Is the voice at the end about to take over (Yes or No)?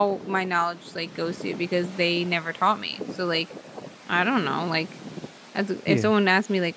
No